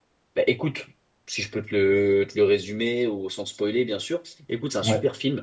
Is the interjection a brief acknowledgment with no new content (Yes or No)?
Yes